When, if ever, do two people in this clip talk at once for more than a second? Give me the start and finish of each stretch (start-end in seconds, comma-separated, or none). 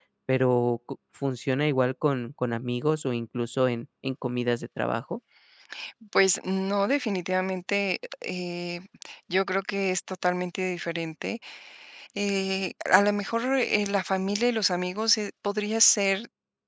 none